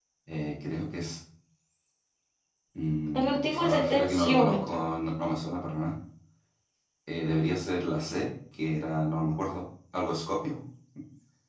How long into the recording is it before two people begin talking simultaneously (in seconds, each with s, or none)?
3.1 s